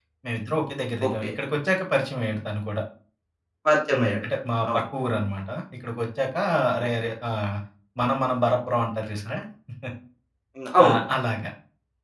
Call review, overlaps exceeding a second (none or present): none